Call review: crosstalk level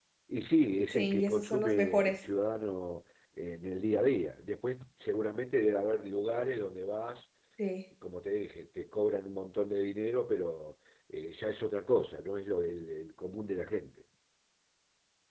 present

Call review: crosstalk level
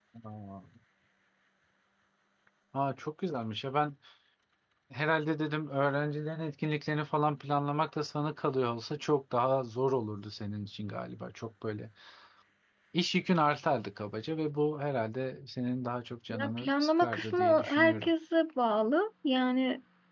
present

